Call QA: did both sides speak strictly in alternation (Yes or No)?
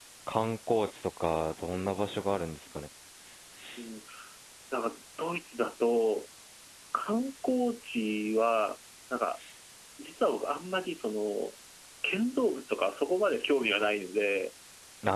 Yes